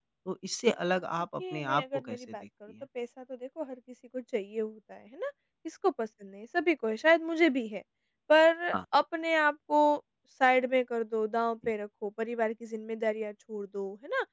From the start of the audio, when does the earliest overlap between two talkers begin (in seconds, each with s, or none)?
1.4 s